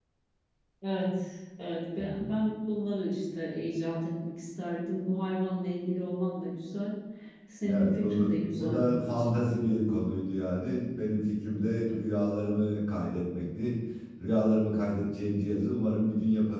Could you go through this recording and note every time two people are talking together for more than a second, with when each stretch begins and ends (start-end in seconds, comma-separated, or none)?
7.7-9.2